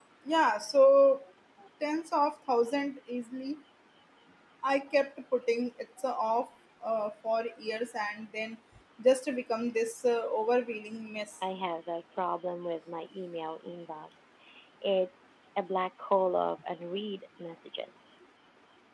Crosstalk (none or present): none